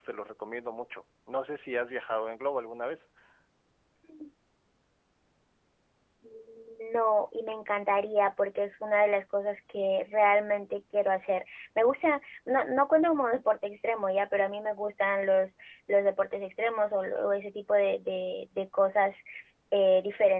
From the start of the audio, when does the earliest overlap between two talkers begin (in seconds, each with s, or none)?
none